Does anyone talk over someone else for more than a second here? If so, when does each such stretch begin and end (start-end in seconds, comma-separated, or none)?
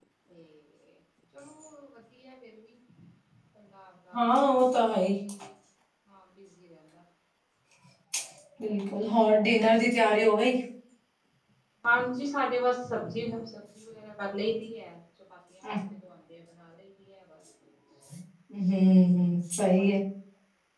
none